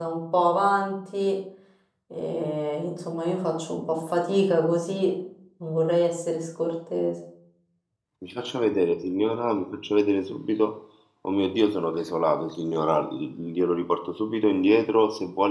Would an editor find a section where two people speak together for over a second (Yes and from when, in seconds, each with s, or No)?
No